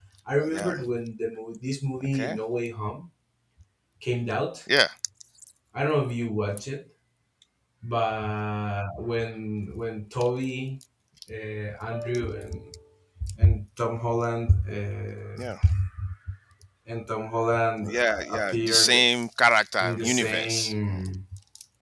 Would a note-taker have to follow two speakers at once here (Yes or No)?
Yes